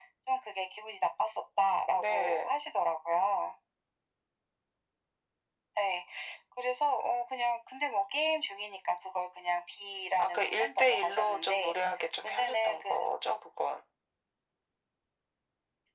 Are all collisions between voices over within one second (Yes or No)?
No